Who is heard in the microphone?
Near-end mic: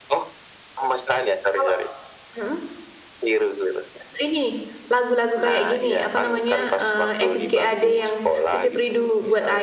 both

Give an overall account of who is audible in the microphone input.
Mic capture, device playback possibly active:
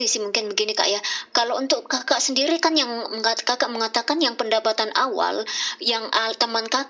echo only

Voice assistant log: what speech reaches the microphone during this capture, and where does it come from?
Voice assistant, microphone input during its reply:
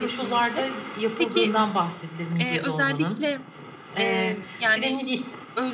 both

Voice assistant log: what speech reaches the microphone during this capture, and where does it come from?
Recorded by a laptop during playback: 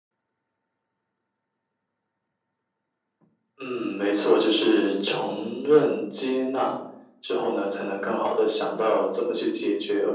echo only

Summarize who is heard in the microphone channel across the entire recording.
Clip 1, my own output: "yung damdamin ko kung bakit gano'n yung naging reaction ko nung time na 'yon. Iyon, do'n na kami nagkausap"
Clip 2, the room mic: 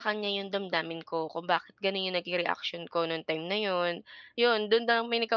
echo only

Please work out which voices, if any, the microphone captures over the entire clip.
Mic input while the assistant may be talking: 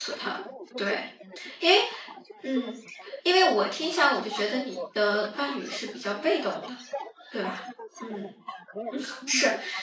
both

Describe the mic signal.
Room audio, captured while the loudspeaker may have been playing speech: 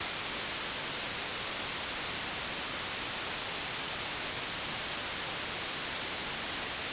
neither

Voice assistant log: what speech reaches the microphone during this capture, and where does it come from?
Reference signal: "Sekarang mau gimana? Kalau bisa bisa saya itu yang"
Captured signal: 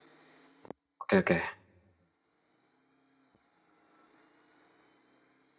user only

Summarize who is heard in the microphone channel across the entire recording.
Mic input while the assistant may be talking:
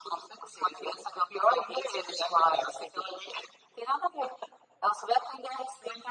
echo only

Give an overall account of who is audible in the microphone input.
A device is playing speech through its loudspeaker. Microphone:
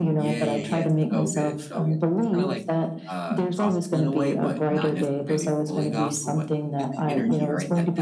both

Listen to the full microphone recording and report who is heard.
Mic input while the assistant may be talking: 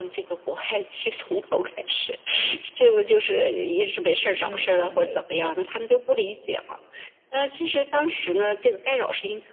both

